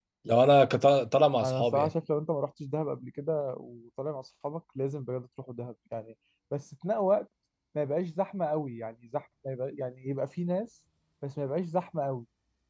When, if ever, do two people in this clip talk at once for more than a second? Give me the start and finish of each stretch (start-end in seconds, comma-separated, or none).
none